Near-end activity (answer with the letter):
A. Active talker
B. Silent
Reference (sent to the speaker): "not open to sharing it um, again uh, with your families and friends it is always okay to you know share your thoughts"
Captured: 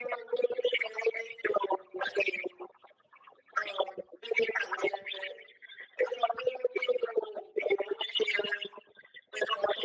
B